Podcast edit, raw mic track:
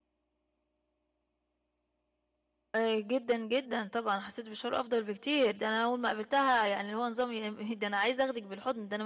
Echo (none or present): none